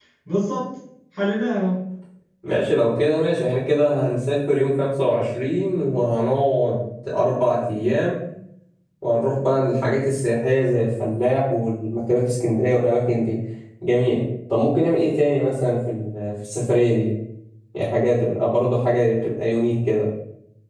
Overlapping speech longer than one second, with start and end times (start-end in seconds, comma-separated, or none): none